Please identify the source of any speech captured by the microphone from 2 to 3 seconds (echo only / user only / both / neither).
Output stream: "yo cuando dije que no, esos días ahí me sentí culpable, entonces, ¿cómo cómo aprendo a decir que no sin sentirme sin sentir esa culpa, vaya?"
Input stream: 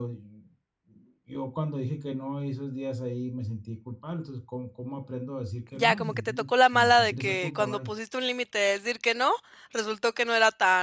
echo only